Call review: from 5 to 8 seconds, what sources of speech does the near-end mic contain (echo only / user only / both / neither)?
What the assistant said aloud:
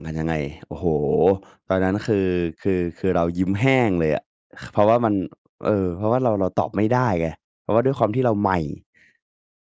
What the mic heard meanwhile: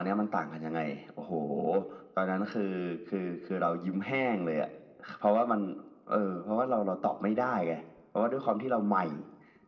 echo only